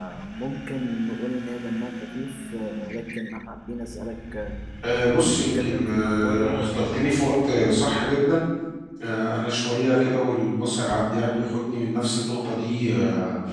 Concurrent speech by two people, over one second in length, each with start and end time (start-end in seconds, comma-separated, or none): 5.1-7.0